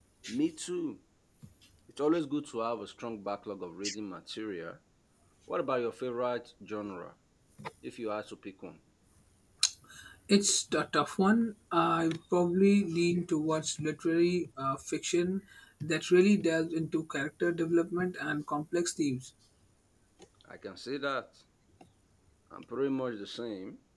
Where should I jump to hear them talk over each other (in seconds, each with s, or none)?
none